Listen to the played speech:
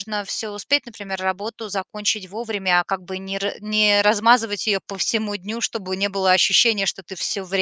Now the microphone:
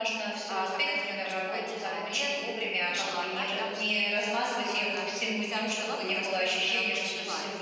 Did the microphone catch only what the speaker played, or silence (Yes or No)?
No